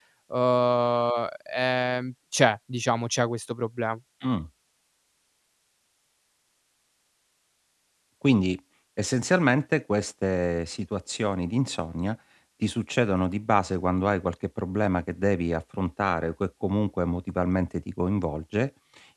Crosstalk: none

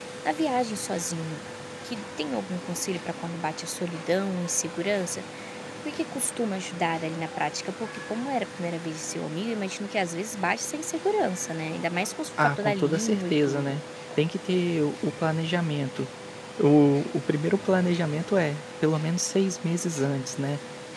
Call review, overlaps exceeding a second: present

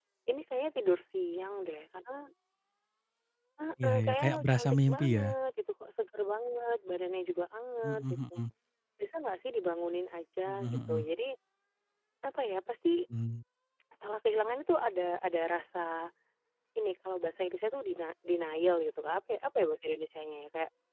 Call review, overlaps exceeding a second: present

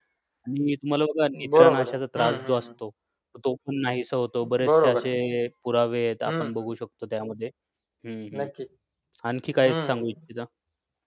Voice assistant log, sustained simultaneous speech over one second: present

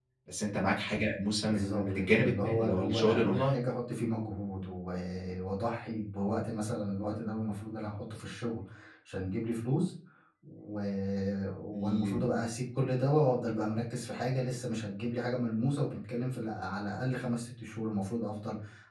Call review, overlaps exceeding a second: present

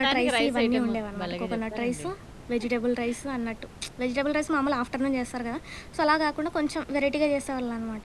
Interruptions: present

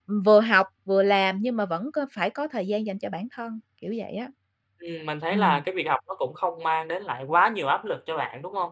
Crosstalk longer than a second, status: none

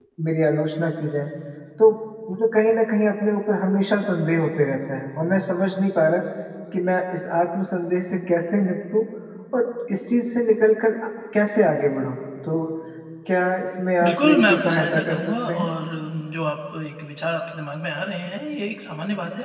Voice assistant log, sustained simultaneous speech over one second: present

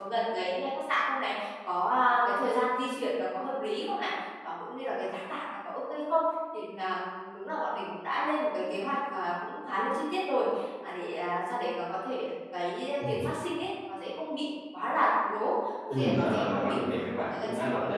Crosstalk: present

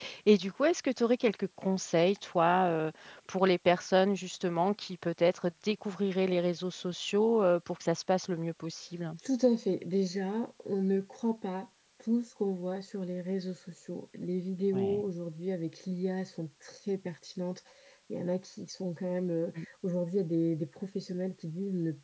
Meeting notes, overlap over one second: none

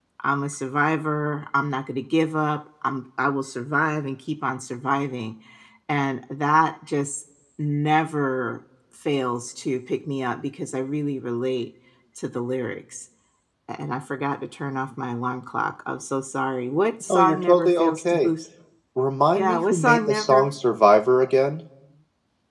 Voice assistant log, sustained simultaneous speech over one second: present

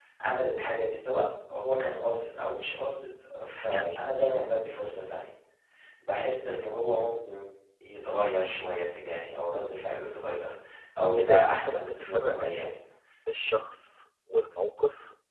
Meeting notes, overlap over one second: present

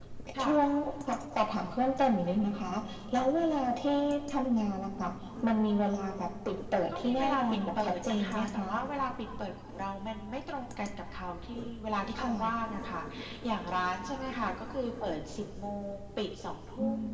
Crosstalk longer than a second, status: present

